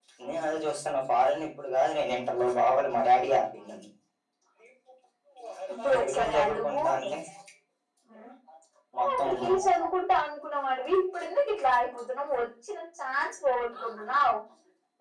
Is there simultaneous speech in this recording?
Yes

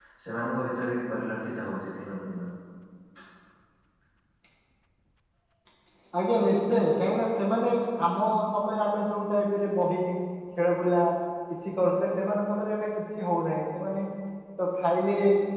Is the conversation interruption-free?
Yes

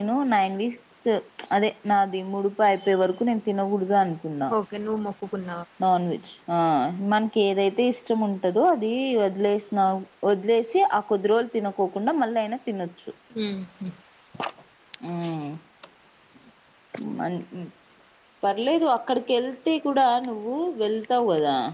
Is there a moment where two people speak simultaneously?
No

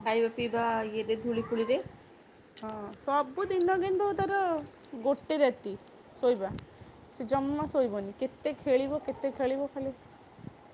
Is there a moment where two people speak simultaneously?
No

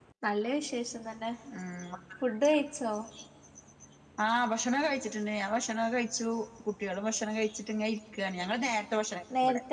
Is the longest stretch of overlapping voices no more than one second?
Yes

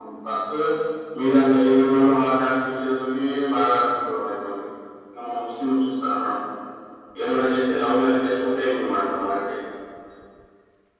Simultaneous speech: No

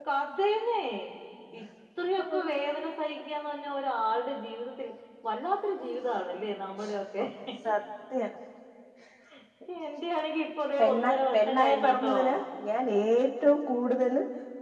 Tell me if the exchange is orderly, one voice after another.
No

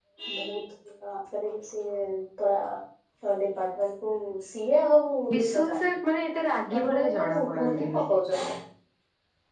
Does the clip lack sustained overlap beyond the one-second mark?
No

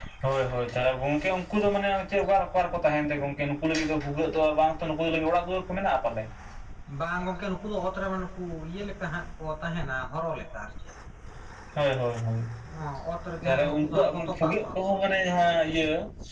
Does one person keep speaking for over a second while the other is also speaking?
Yes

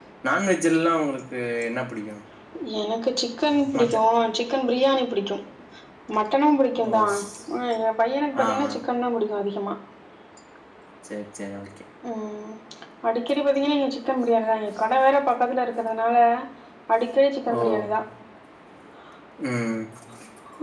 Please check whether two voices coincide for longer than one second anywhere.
No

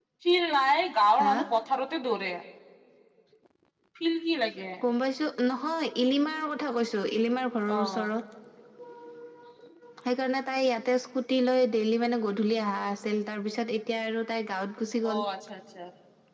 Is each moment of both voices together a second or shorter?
Yes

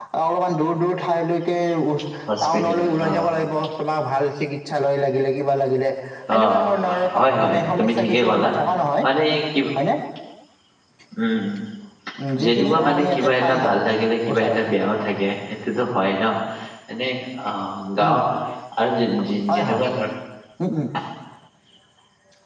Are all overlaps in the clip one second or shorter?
No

